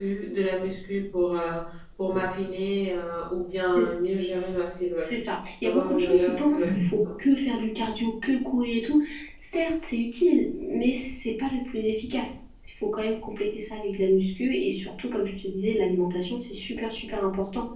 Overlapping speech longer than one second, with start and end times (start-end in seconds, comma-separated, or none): 5.6-7.0